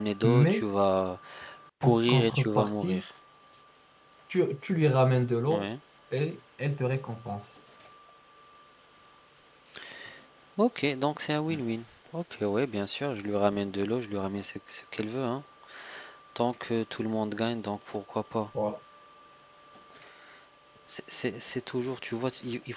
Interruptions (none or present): present